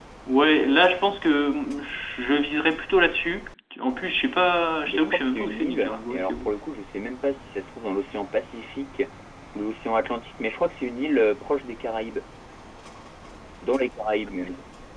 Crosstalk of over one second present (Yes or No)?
Yes